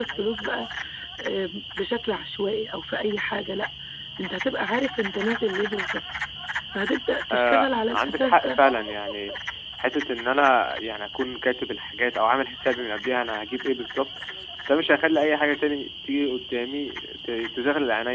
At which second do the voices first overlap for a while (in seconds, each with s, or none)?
7.3 s